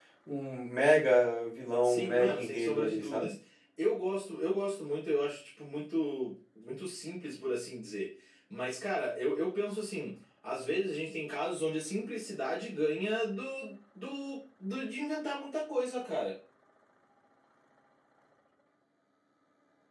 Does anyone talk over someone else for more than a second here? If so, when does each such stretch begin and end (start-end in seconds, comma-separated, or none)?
1.8-3.3